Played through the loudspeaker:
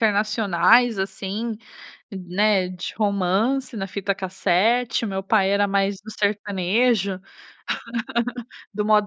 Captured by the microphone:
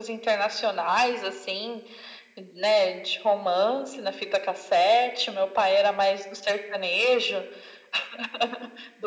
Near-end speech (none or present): none